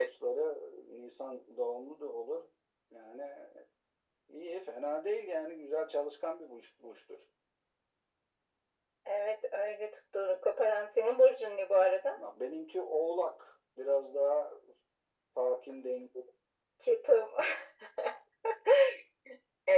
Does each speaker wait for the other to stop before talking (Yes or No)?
Yes